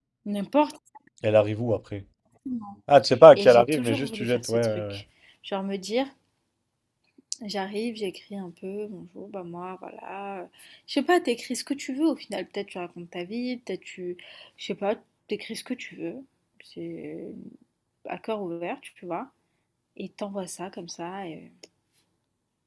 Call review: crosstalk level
present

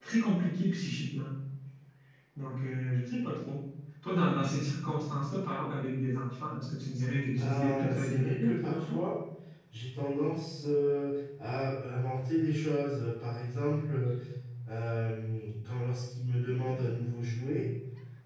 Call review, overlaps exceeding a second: present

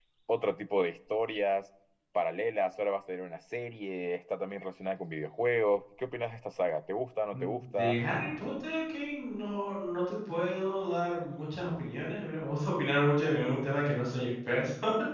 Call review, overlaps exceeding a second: none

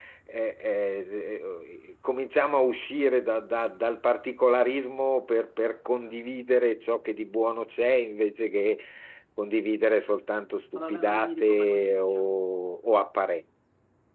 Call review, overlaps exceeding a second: present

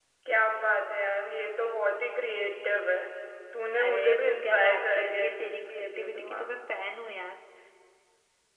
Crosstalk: present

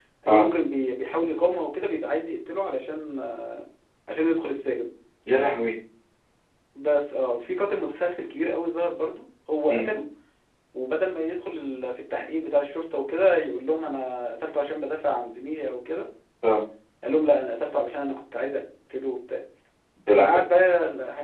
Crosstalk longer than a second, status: none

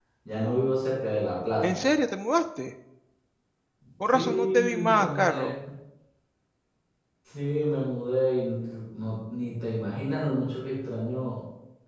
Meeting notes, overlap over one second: present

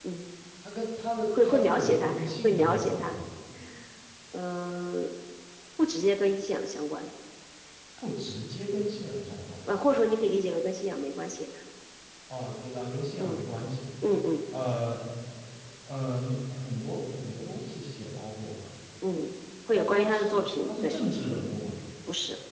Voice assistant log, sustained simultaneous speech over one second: present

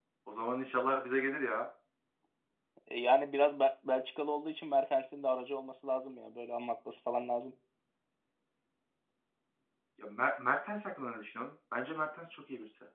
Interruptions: none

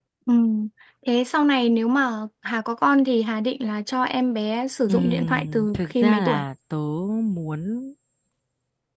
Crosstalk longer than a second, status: present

